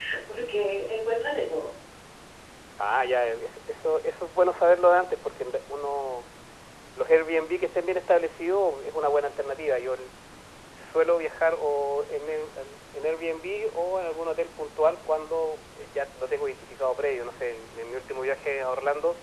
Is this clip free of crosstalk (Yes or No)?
Yes